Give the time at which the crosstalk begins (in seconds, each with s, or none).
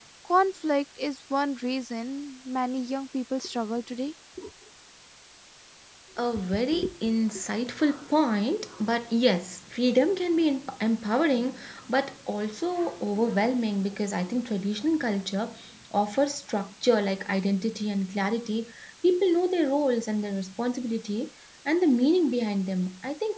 none